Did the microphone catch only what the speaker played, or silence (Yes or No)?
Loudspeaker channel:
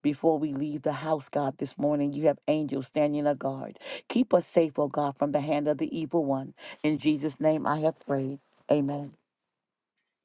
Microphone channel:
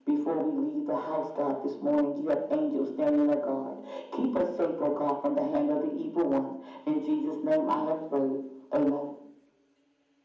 Yes